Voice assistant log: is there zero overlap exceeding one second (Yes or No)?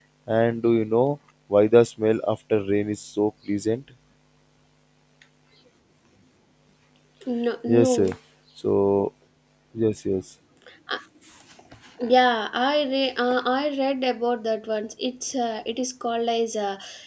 Yes